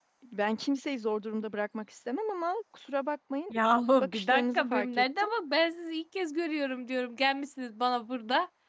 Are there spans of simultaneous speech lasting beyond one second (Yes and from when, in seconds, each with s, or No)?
Yes, from 4.0 s